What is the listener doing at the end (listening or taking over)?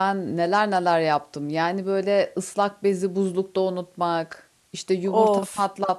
listening